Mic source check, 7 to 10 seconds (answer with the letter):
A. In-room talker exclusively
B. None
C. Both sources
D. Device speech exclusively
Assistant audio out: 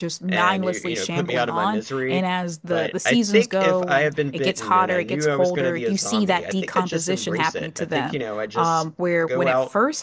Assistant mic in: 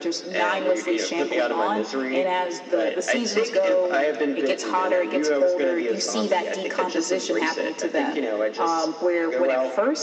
D